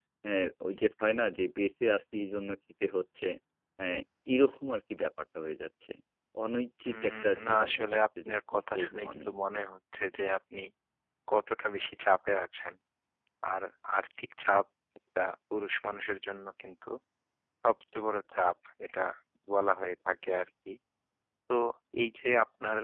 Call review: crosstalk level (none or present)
present